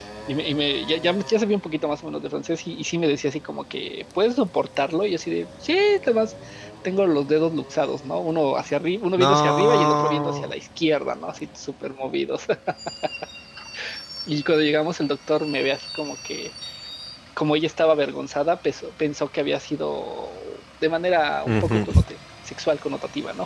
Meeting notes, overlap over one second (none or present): present